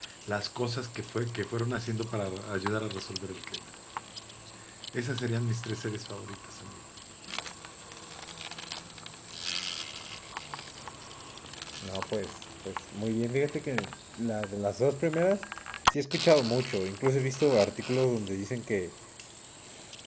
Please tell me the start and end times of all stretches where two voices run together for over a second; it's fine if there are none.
none

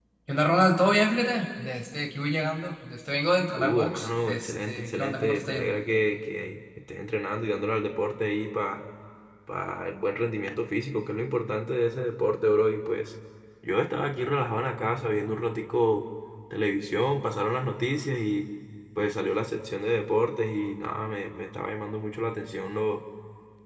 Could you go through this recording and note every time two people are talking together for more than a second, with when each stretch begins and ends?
3.6-5.7

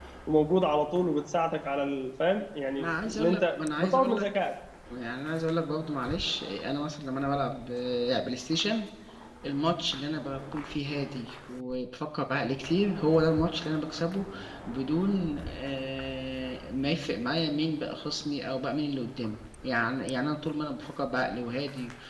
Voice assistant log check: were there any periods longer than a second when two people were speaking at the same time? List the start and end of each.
2.8-4.3

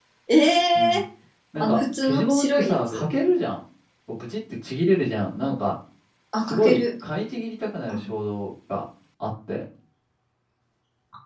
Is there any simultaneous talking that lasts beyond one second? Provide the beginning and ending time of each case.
1.6-3.0

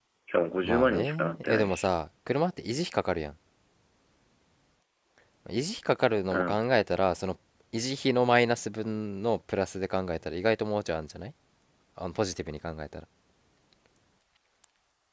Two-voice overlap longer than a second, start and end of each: 0.6-1.9

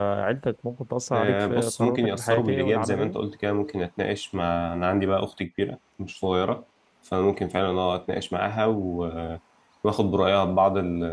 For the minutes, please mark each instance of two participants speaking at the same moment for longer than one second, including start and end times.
1.1-3.2

